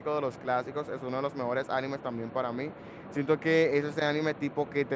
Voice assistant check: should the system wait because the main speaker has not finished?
Yes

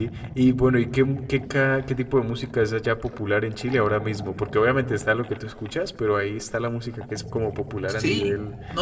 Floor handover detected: Yes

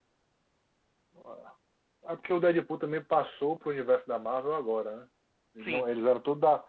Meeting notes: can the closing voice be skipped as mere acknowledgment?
Yes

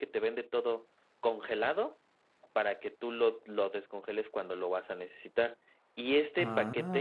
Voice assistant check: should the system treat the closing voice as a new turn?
No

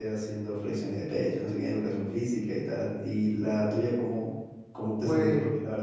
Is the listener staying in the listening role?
Yes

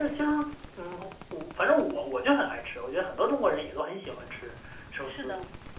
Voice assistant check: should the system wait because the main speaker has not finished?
No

